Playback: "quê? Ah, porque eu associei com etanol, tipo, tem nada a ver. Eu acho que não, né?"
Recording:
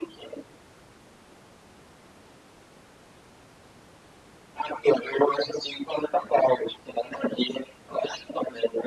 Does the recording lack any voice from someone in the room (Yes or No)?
Yes